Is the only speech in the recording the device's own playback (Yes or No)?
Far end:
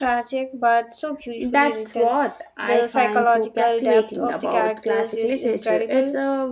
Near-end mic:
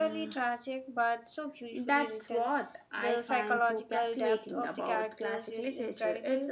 Yes